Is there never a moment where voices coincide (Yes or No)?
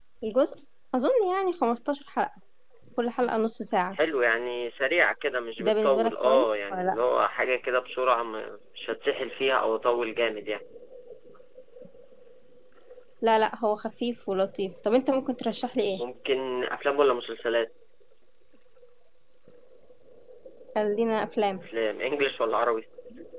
No